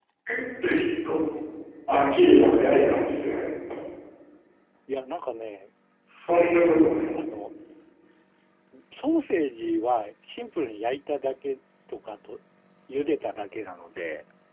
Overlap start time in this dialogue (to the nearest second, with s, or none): 2 s